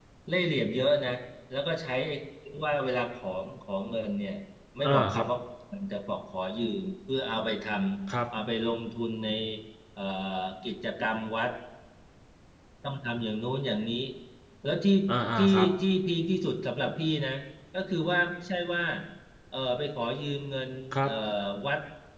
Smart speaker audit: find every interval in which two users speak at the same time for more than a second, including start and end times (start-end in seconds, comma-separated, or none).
none